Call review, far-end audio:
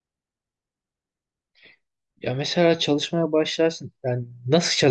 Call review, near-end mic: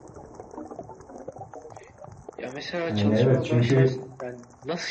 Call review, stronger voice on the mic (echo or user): user